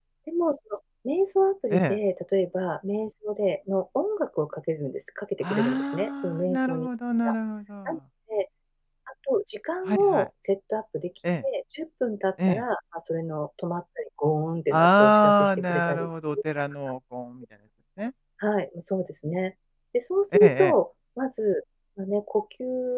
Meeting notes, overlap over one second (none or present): present